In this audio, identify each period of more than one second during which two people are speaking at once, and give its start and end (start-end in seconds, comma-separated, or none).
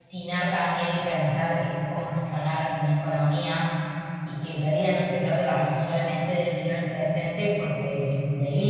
none